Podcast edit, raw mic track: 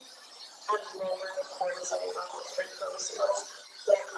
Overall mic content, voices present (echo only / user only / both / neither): echo only